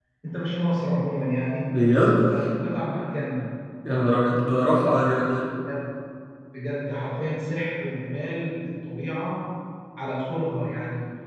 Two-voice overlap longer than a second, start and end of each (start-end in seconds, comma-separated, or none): none